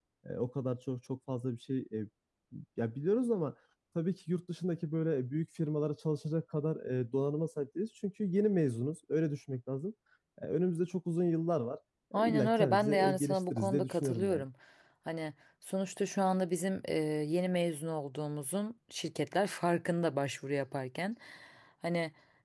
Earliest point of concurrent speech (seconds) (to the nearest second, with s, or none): 12 s